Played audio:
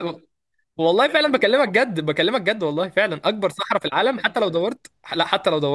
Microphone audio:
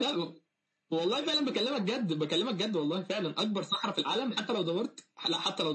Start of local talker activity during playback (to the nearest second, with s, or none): none